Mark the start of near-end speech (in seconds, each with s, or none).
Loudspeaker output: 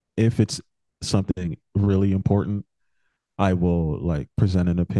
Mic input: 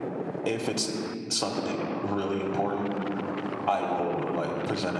none